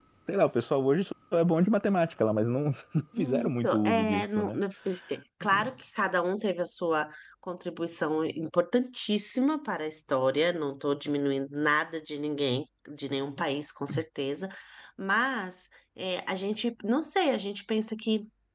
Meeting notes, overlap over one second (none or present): present